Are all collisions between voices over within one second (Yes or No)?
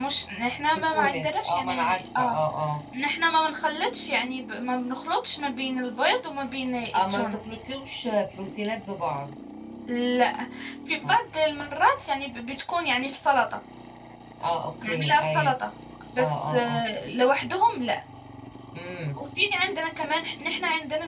No